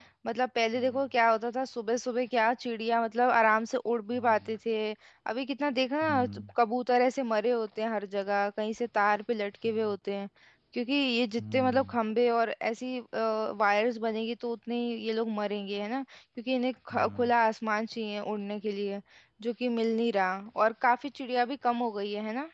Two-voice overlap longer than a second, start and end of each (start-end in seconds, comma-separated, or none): none